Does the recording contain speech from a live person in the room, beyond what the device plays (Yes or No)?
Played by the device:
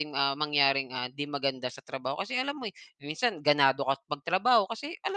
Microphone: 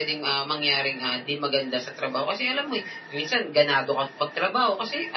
No